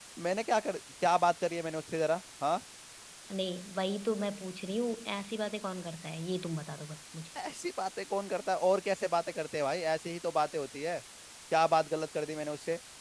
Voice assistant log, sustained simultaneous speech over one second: none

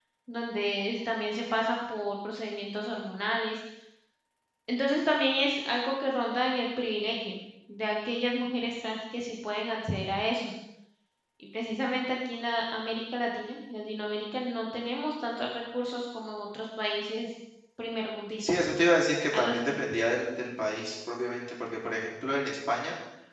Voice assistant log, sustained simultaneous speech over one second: none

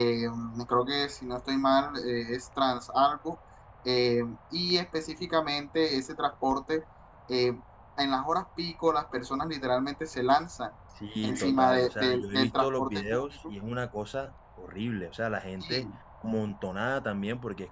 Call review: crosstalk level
present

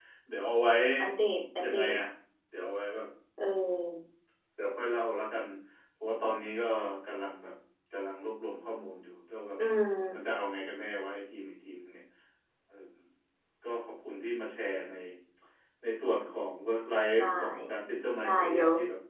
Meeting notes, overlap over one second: none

